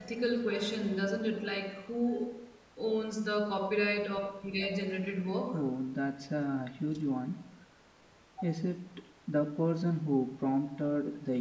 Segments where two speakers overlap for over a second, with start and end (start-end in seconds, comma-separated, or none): none